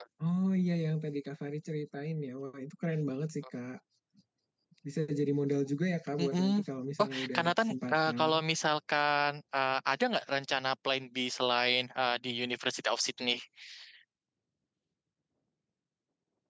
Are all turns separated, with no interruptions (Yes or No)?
No